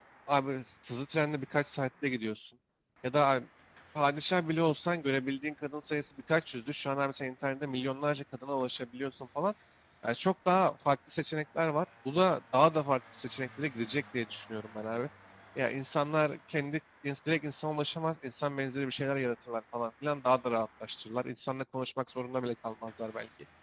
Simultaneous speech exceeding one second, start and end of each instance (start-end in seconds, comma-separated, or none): none